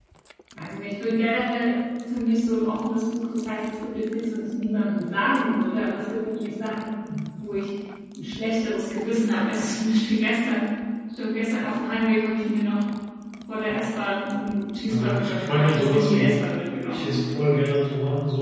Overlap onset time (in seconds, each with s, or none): 14.9 s